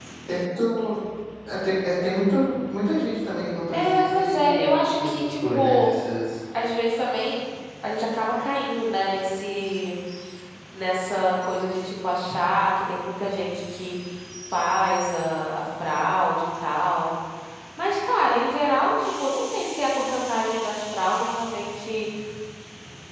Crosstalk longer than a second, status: present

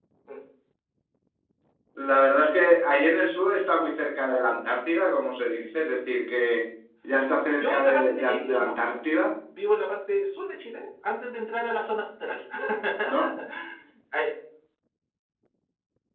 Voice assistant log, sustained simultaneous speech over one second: present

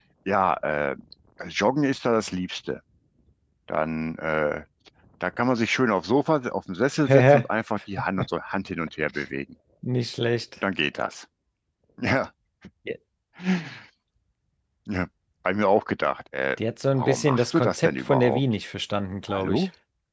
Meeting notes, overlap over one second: present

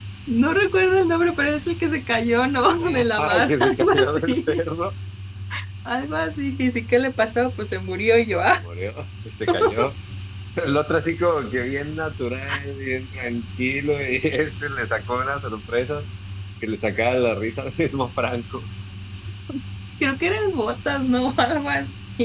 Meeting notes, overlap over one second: present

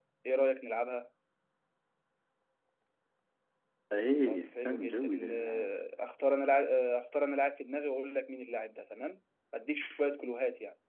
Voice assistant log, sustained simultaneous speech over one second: present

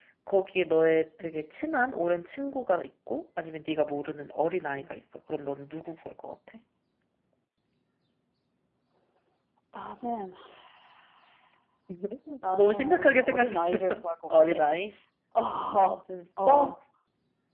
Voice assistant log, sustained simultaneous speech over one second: present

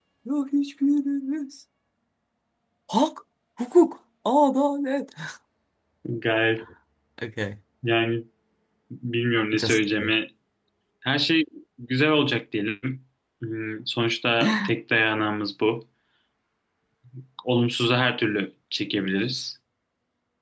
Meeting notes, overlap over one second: none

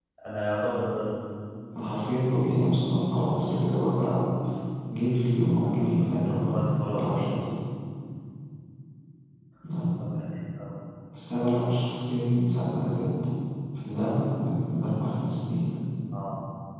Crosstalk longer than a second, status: present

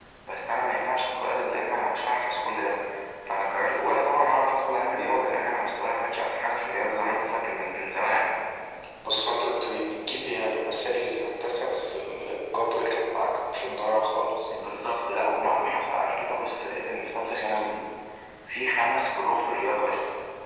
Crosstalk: none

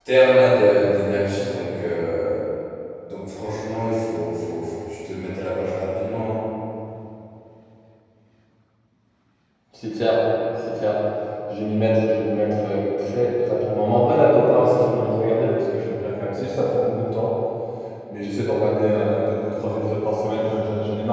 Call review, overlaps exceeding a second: none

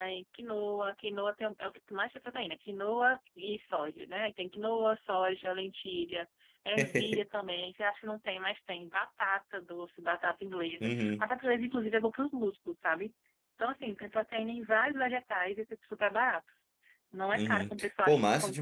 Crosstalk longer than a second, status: present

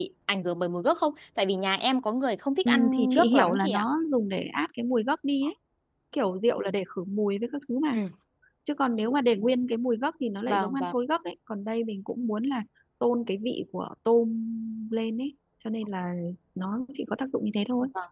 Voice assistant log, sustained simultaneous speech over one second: present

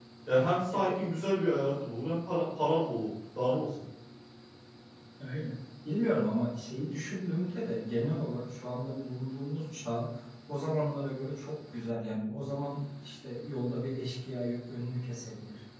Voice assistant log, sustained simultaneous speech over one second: none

